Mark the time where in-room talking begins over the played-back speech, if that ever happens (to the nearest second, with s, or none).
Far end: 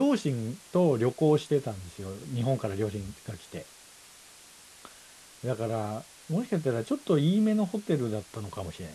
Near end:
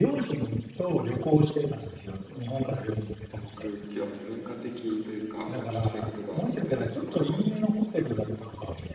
3 s